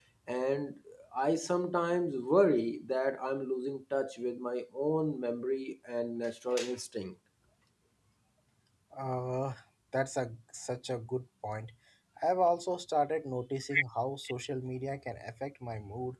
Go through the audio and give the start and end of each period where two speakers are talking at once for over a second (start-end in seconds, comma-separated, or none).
none